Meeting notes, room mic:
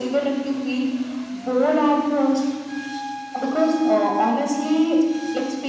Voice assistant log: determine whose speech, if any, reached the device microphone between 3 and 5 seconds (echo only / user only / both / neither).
echo only